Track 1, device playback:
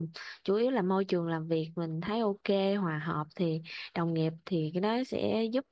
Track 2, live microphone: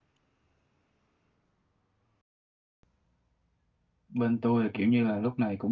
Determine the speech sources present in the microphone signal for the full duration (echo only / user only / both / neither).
user only